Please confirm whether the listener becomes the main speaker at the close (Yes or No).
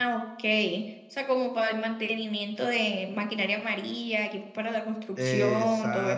Yes